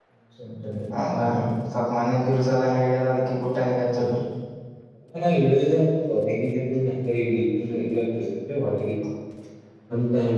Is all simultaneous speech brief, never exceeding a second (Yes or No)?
Yes